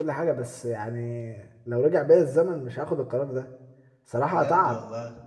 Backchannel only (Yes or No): Yes